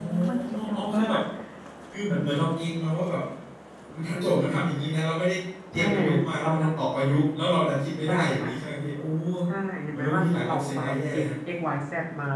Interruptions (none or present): present